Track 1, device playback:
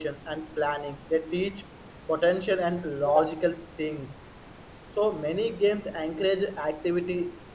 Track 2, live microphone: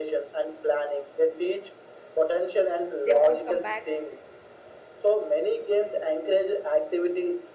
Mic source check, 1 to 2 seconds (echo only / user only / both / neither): echo only